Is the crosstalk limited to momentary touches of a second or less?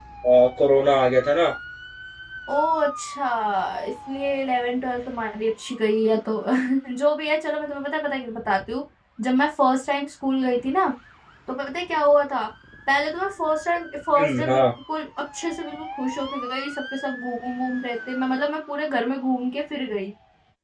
Yes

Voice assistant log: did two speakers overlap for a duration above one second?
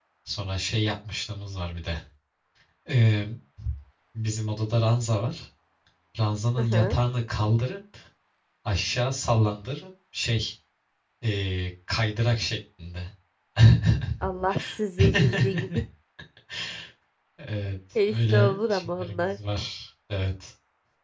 Yes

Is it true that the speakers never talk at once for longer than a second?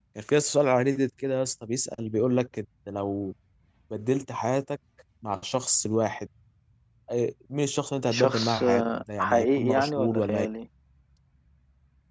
No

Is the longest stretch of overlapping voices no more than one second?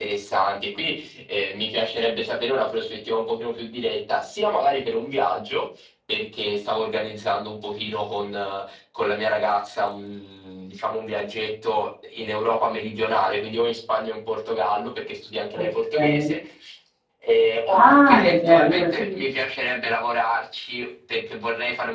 No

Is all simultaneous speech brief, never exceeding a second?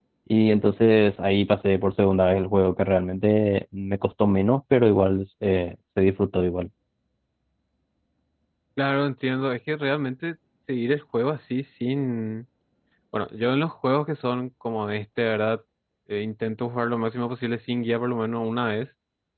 Yes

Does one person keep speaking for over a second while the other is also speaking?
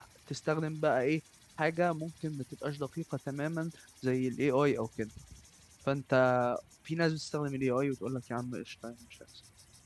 No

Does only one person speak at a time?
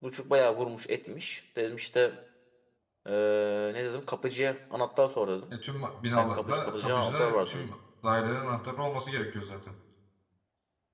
No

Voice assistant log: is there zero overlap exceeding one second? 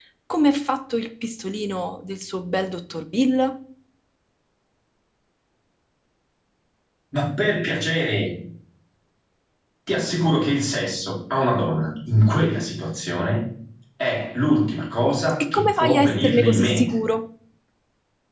No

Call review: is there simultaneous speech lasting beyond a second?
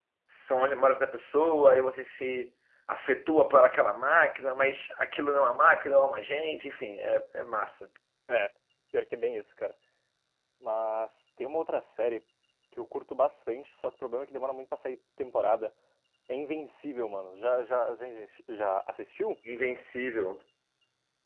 No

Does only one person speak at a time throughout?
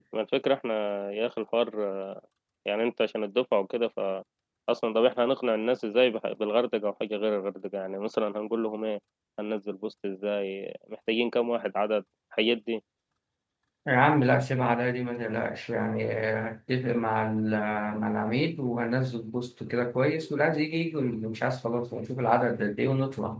Yes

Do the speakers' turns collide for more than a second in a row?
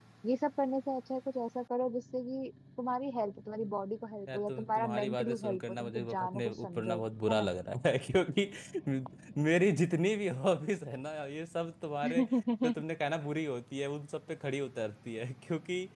Yes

